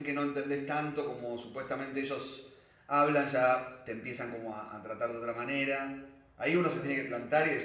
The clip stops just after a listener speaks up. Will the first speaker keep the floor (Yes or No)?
Yes